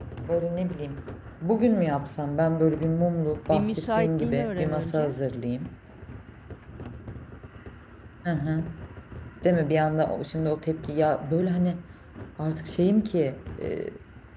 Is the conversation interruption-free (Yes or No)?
No